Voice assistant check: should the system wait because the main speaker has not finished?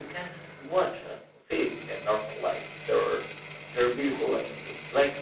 Yes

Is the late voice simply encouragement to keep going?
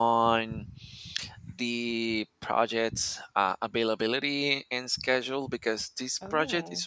Yes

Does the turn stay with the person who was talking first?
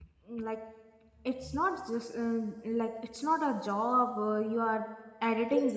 No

